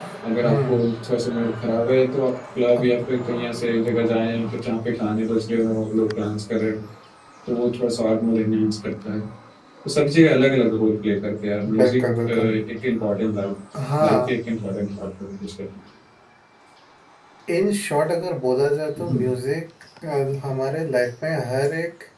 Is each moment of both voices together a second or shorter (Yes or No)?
Yes